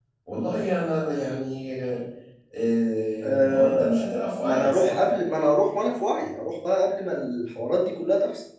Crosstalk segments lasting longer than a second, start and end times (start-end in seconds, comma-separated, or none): 3.2-5.1